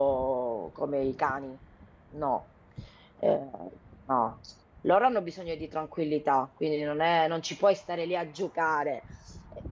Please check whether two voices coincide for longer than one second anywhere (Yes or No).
No